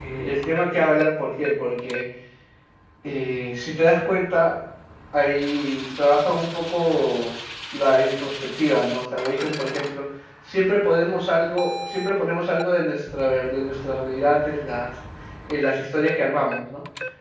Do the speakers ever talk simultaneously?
No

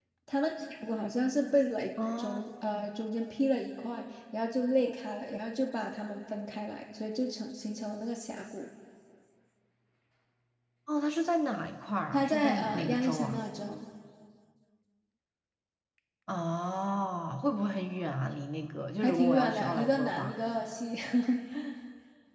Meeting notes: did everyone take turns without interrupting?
No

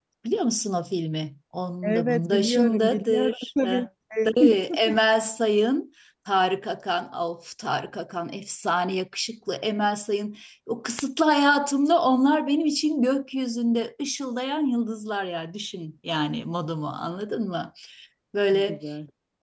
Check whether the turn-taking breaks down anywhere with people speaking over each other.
Yes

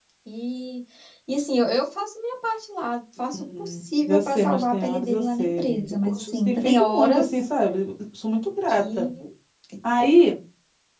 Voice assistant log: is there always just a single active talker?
No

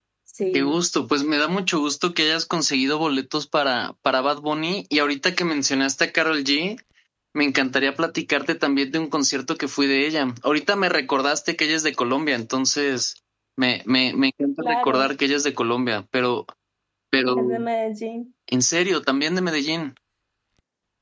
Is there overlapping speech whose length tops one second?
No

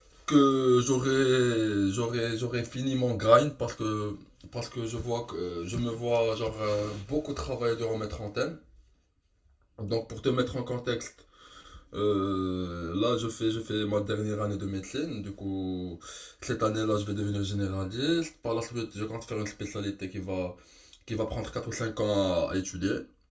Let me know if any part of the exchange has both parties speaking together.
No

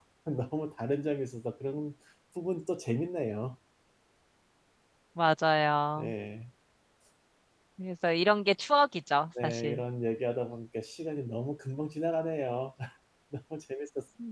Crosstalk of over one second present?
No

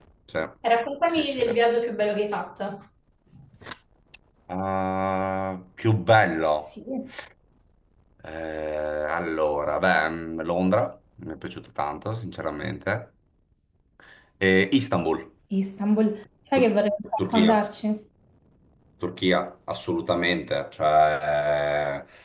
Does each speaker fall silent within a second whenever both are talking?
Yes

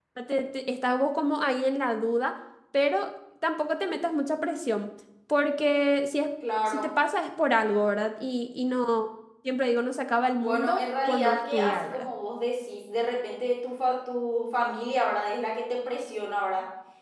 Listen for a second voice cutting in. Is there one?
Yes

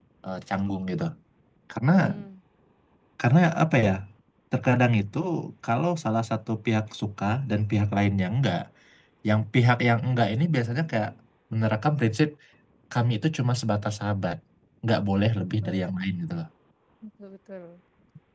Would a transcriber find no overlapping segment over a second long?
Yes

